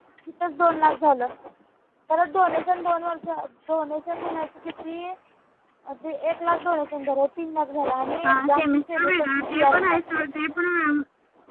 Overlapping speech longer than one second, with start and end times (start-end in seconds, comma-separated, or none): 8.3-10.1